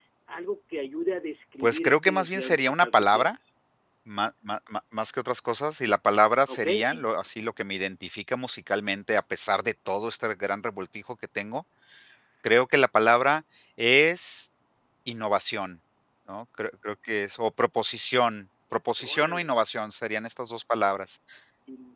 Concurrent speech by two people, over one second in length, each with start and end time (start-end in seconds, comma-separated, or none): 1.6-3.3